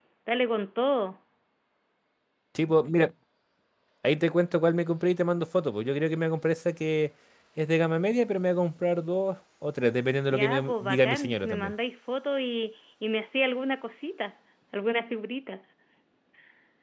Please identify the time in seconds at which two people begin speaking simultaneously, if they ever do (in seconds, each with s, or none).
10.3 s